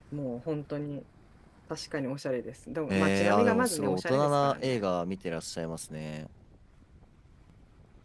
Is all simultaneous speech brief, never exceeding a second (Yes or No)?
No